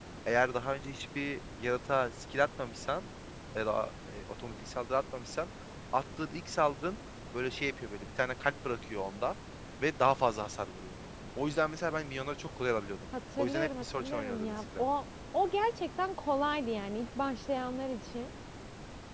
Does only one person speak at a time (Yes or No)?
No